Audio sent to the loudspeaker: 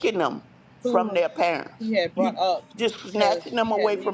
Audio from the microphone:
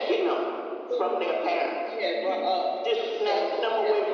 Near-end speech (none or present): none